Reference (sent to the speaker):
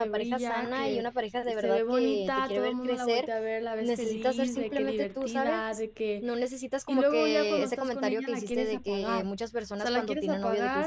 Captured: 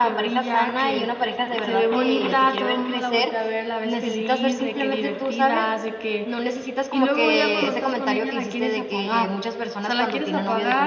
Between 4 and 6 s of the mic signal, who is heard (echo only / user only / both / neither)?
echo only